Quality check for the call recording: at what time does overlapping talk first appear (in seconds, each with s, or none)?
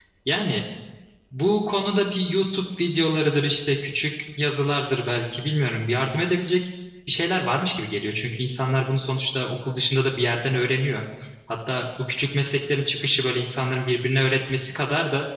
none